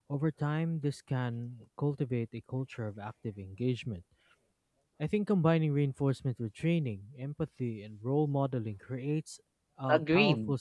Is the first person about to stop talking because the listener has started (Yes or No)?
Yes